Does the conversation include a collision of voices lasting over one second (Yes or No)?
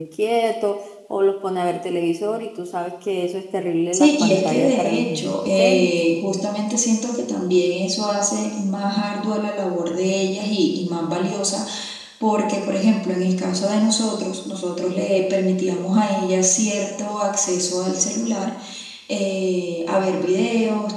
Yes